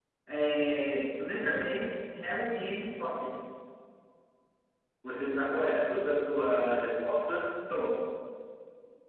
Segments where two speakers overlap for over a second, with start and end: none

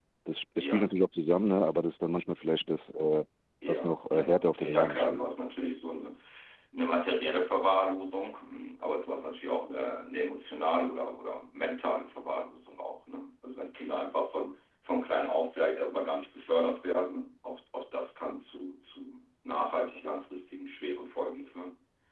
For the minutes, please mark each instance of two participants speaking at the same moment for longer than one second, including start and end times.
3.7-5.2

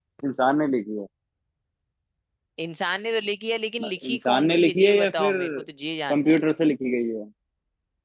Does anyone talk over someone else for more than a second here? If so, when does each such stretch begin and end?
4.0-5.4

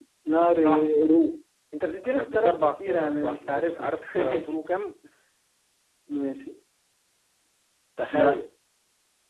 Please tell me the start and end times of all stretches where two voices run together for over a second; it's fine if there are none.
2.0-4.5

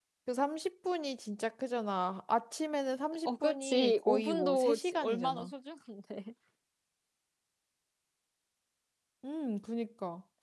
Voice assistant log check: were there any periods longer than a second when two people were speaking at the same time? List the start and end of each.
3.2-5.5

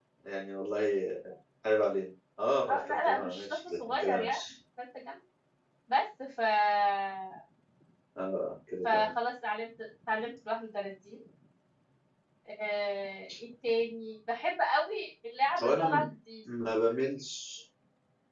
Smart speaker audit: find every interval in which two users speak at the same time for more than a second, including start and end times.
2.7-4.4

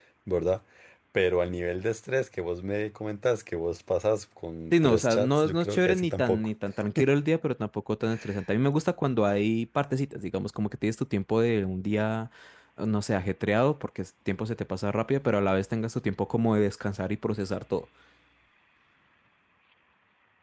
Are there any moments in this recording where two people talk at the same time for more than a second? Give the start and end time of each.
4.8-6.5

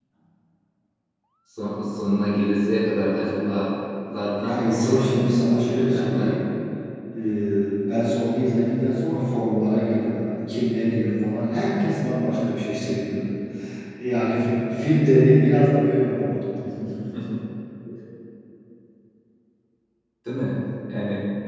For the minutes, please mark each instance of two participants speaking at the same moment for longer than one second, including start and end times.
4.4-6.4

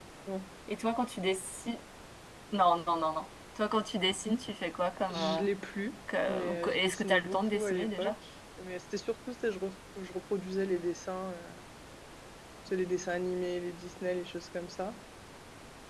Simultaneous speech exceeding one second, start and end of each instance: 6.3-8.1

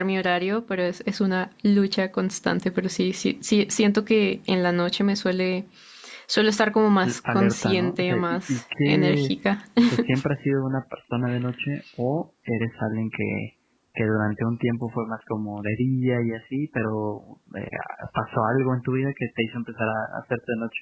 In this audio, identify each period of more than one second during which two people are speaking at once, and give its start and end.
7.0-9.3

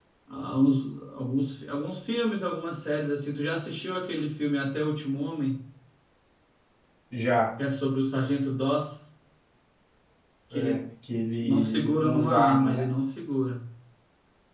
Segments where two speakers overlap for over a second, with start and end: 11.4-12.9

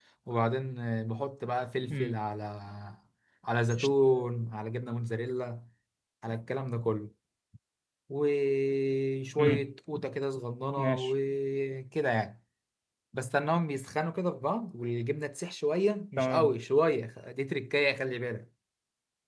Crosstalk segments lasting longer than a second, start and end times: none

